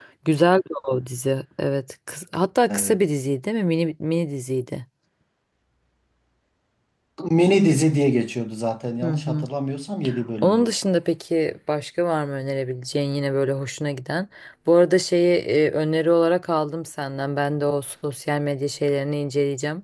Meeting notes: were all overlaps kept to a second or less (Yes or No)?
Yes